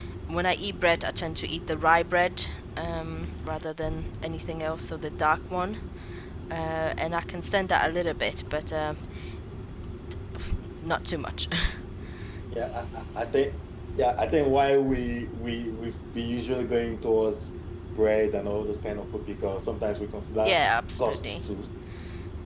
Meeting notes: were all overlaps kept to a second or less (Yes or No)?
Yes